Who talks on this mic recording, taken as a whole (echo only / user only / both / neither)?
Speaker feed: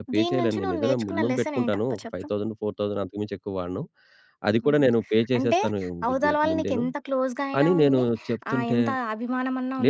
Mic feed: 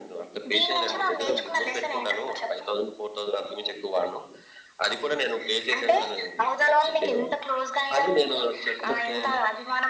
echo only